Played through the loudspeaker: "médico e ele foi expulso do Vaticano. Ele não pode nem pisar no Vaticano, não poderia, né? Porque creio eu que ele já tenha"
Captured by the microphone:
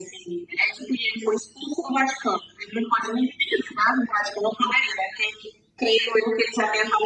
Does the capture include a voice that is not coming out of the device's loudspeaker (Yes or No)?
No